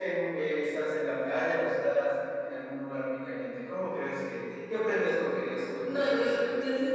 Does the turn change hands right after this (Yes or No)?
Yes